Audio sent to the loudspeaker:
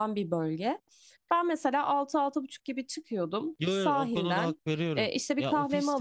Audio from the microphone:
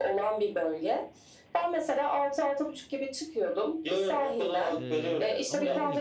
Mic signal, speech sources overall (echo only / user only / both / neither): both